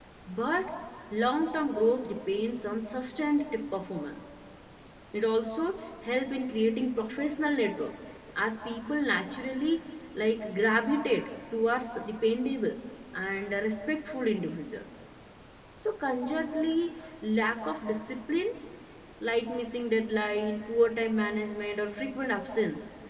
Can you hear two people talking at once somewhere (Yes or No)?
No